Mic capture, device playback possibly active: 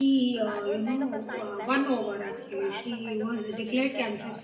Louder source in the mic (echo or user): user